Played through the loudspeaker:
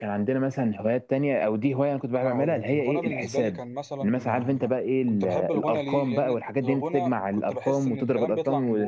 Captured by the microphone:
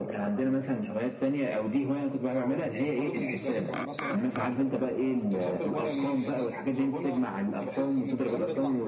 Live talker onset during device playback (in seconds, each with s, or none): none